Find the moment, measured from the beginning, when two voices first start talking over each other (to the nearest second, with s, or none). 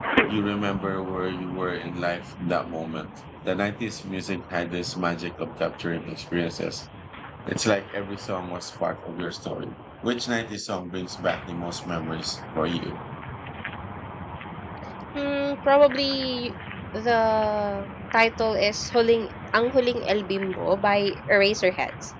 none